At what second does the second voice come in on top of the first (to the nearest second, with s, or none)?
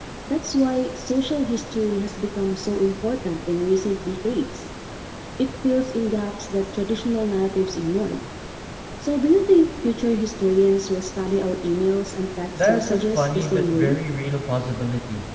13 s